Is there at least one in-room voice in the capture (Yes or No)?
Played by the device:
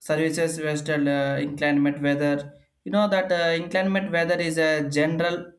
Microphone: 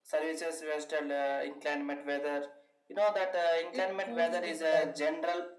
Yes